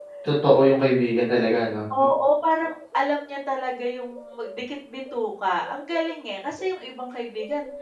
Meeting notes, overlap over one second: none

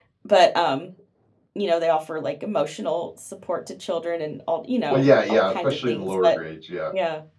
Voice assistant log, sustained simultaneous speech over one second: present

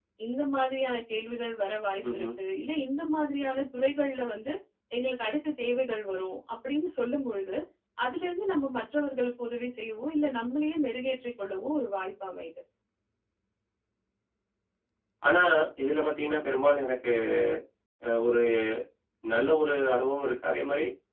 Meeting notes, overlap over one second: none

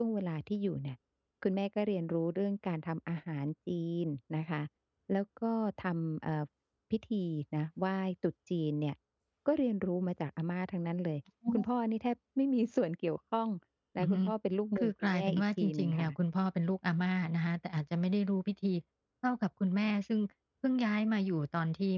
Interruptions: present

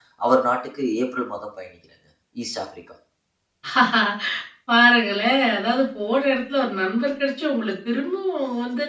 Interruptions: none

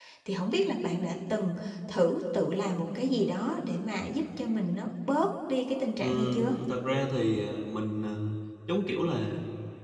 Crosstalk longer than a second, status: none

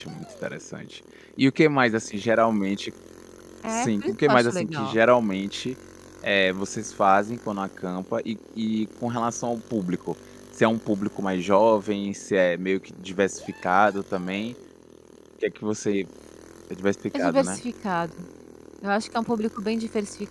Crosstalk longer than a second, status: present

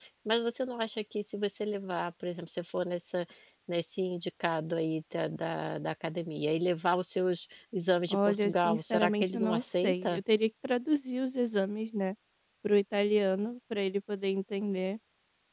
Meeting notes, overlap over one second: present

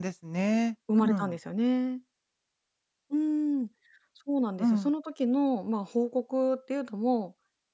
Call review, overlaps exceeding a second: none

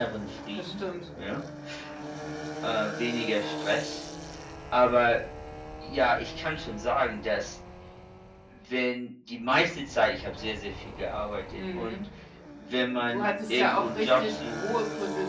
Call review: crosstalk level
present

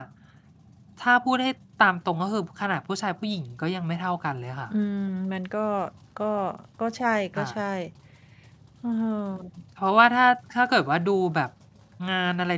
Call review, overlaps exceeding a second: none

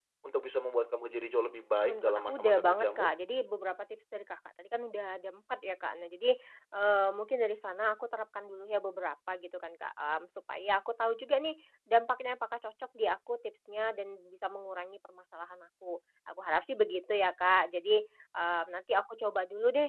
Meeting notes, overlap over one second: present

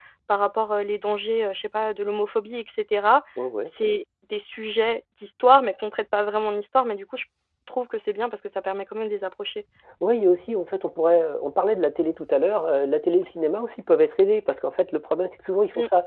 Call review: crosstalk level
none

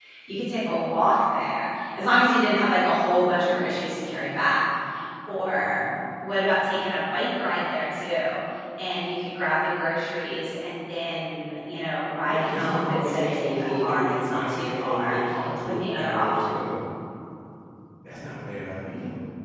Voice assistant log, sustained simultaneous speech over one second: present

